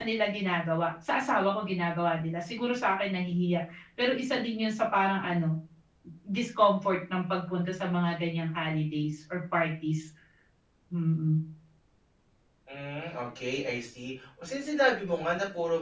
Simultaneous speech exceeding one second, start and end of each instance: none

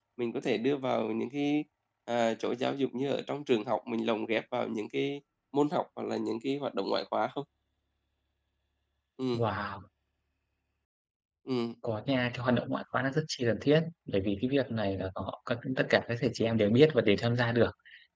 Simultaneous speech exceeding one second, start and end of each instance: none

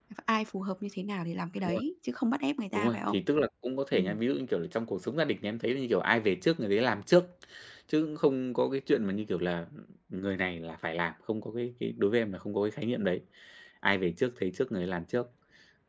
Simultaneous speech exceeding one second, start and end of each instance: none

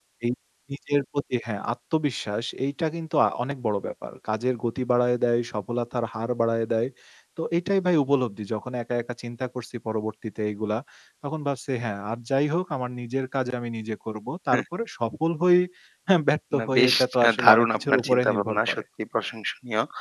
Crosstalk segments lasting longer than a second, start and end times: 16.6-18.8

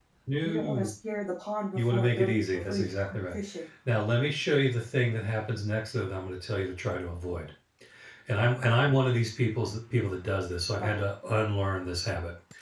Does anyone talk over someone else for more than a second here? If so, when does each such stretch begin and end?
1.8-3.4

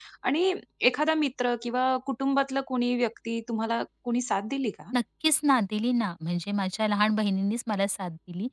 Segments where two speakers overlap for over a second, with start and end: none

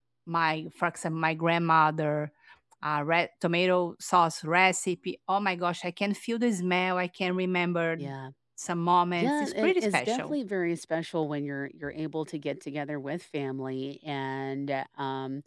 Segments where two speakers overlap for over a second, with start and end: 9.2-10.4

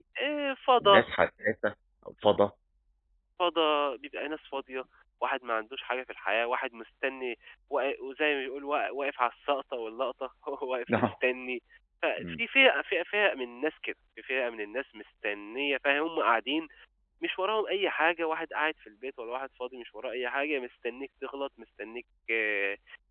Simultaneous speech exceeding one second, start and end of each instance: none

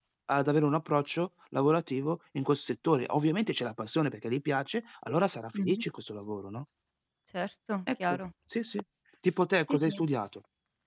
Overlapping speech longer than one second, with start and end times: none

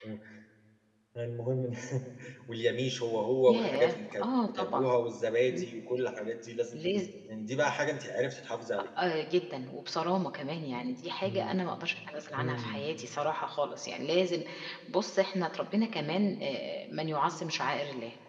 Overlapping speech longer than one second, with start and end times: 3.5-4.9

